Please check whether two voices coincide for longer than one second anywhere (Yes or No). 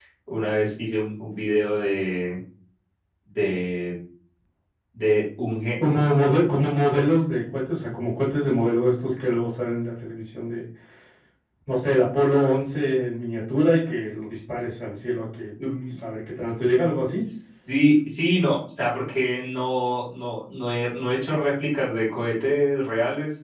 No